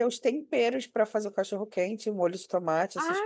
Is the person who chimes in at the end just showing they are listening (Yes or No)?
No